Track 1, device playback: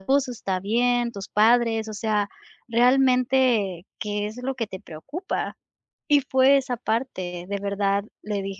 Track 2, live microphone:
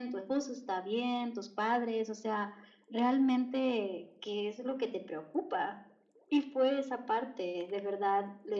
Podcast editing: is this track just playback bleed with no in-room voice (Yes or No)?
Yes